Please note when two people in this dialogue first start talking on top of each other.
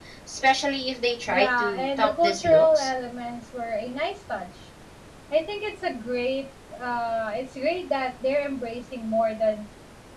1.3 s

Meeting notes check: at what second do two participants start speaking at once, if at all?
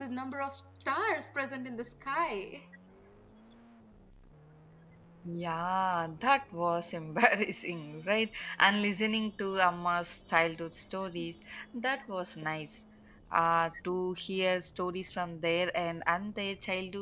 none

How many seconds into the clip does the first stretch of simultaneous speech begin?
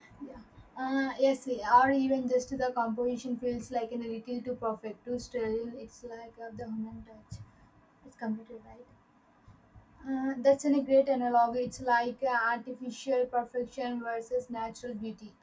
none

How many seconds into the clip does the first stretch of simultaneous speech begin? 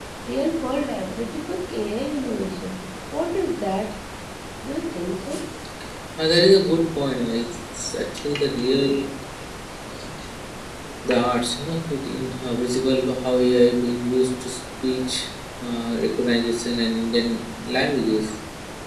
none

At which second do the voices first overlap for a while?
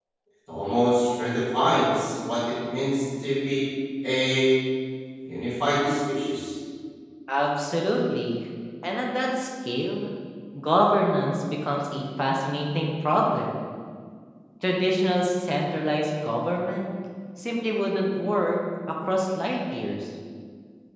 none

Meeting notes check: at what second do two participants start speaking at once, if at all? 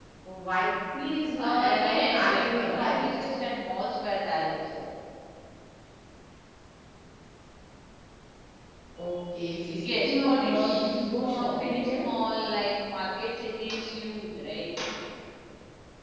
1.4 s

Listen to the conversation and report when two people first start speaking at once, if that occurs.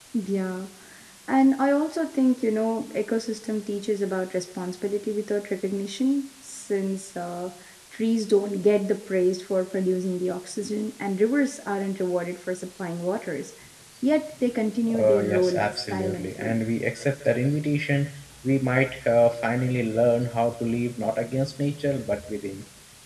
15.0 s

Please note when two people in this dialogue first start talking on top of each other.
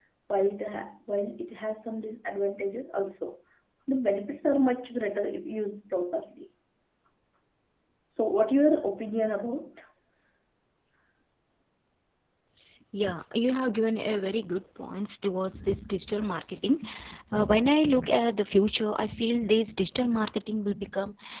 none

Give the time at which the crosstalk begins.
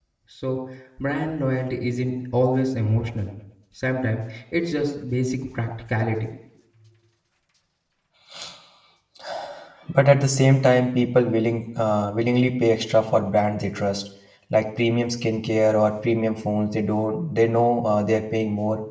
none

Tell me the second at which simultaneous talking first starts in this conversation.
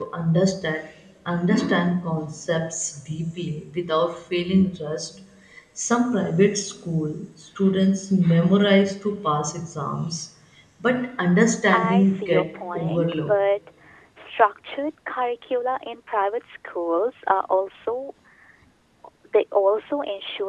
11.7 s

